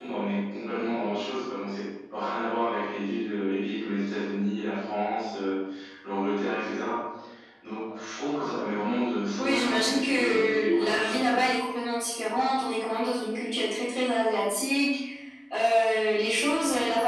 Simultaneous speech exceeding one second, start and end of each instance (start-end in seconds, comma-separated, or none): 9.4-11.3